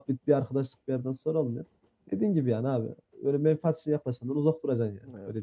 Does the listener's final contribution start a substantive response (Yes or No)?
Yes